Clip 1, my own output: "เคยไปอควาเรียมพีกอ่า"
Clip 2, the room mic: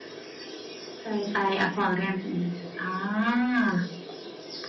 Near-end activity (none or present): none